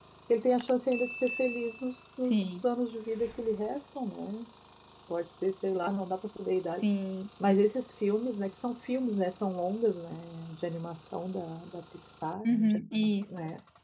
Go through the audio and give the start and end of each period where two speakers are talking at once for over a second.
none

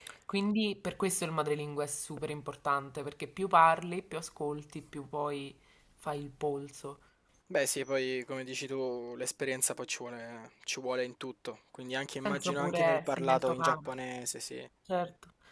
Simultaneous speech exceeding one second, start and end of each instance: 12.2-13.9

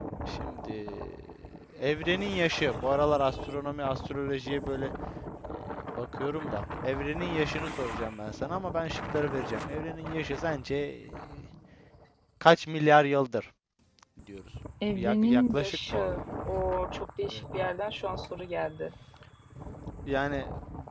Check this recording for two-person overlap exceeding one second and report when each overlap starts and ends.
14.9-16.2

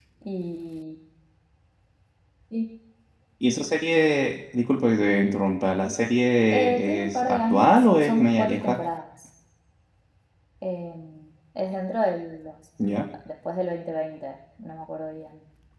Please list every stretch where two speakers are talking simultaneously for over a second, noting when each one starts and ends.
6.5-8.8

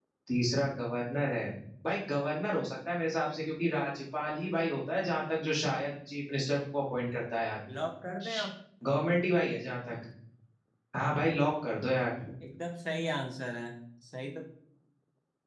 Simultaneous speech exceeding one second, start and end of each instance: none

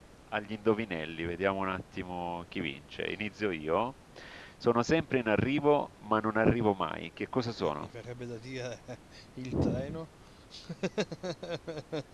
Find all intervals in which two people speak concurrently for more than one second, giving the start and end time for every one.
none

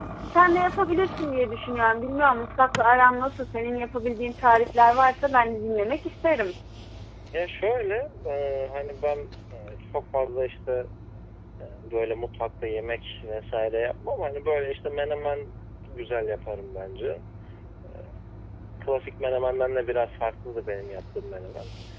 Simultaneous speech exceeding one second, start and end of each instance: none

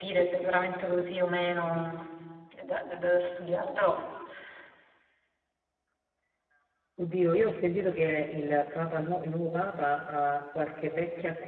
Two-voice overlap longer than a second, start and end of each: none

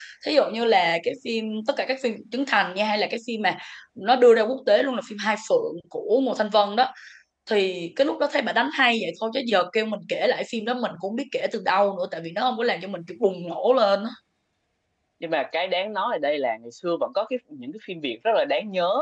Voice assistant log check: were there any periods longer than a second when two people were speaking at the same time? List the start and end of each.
none

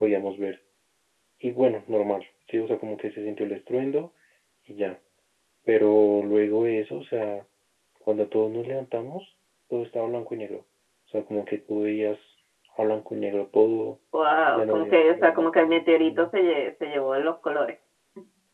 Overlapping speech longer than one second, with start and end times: 14.5-16.3

